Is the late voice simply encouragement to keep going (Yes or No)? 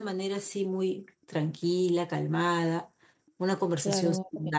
No